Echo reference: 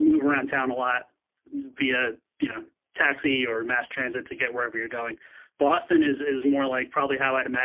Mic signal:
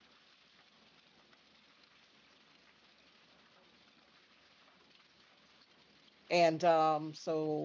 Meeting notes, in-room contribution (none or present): present